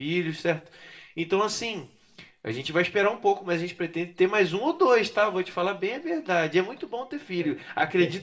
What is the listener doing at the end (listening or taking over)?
listening